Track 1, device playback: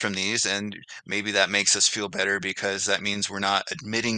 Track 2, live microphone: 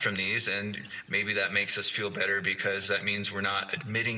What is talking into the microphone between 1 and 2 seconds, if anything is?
echo only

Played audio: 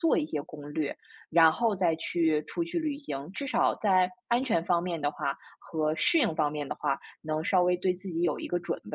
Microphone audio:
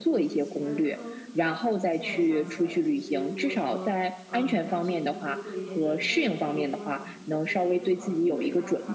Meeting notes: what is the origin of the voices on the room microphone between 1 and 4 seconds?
both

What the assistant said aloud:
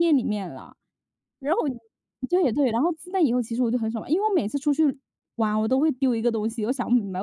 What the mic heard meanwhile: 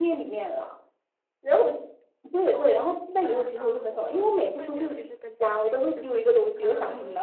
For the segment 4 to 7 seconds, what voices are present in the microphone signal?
both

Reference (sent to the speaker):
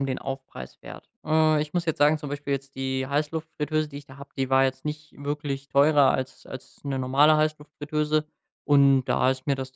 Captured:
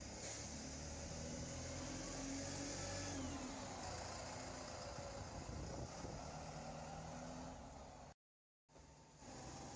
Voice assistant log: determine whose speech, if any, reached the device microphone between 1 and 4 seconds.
neither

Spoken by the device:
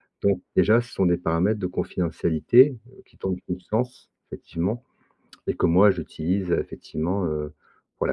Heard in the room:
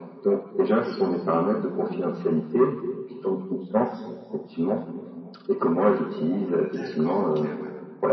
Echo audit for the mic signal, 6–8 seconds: both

